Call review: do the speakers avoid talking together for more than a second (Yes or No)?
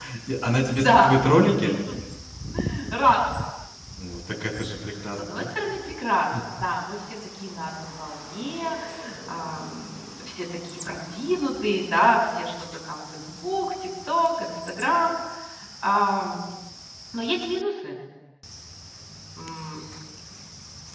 Yes